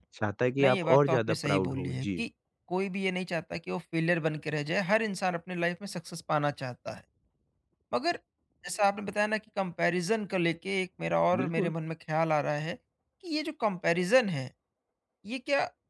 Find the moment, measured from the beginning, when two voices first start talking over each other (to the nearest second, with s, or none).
1 s